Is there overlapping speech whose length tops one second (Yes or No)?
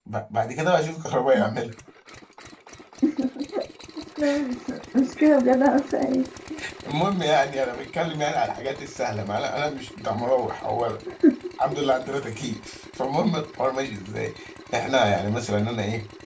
No